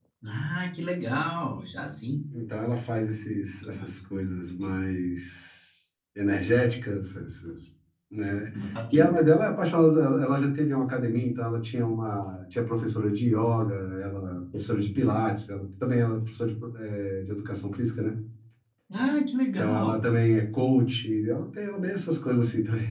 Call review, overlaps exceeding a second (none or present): present